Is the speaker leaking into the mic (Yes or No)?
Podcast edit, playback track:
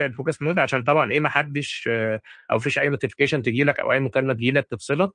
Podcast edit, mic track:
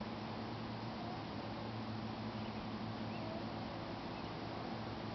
No